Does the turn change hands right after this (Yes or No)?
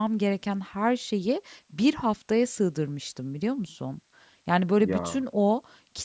No